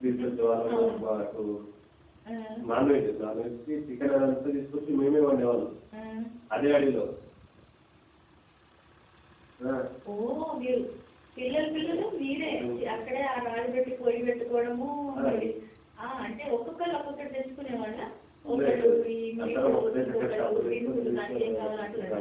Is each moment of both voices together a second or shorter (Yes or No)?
No